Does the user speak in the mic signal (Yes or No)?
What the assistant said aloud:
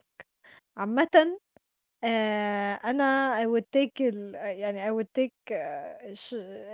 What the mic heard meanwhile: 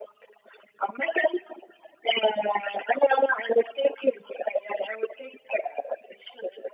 No